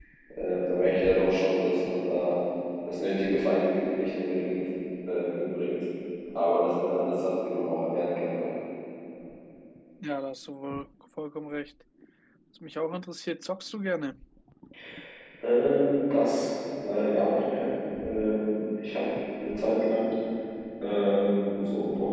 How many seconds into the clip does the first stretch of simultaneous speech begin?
none

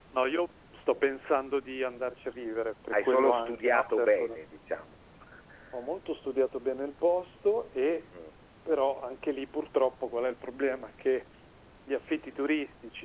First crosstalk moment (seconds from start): 2.9 s

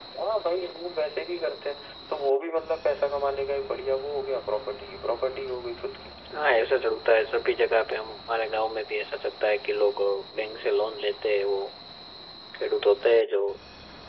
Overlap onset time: none

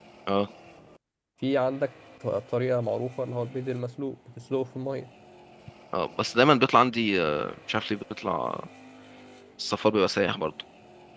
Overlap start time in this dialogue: none

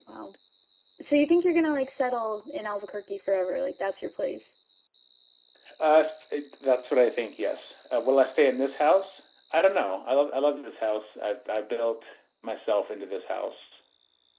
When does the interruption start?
none

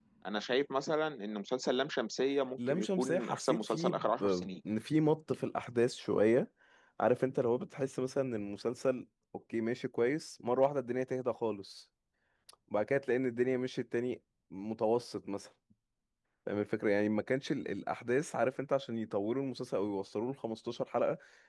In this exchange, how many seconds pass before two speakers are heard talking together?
2.6 s

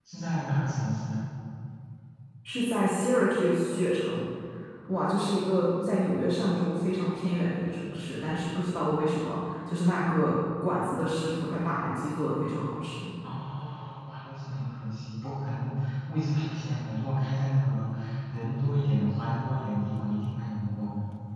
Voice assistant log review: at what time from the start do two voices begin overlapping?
none

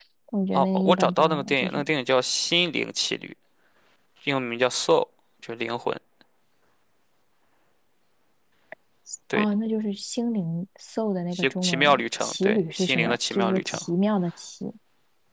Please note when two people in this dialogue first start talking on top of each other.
0.5 s

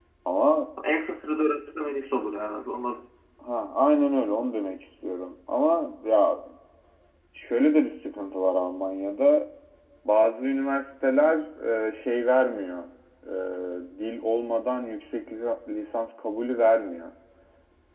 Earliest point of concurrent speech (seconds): none

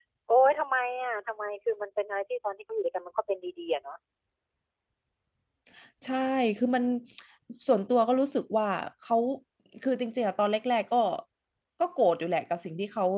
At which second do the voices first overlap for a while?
none

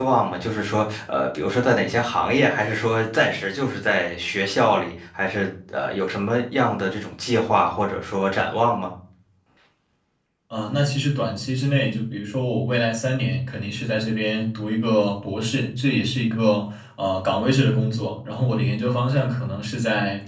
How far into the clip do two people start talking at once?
none

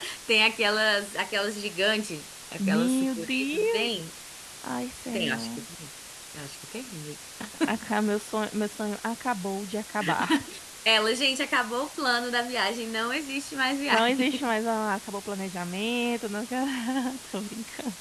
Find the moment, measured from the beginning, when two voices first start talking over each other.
2.7 s

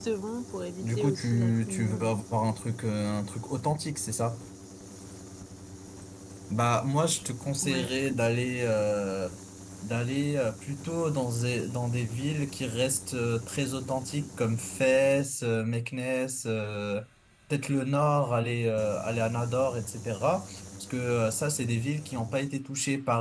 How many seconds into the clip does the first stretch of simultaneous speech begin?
0.8 s

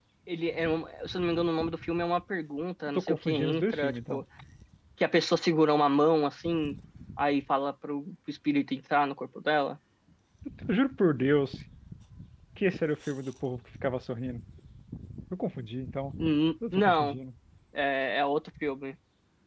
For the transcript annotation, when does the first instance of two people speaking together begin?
3.0 s

